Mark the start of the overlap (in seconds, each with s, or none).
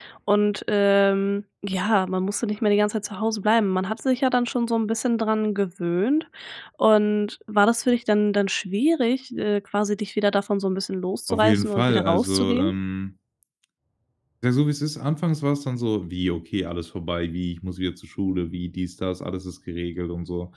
11.3 s